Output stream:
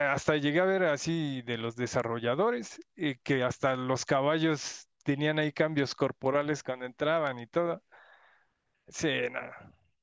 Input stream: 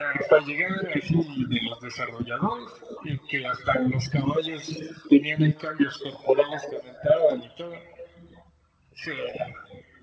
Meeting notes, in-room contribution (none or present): none